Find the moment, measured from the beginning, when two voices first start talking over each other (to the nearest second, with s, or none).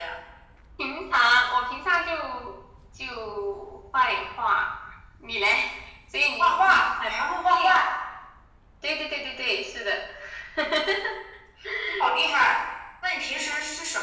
6 s